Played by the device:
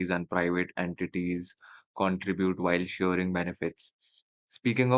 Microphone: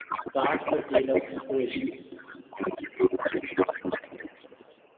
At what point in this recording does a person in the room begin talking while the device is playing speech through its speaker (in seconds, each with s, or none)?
0.3 s